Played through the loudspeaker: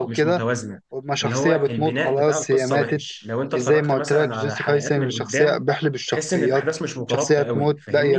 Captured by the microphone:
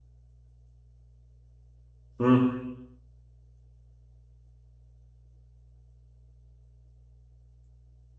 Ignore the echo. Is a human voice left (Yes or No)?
Yes